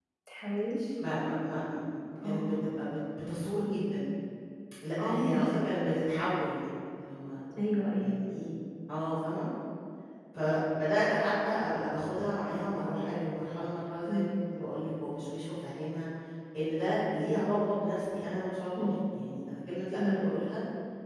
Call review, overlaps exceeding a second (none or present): none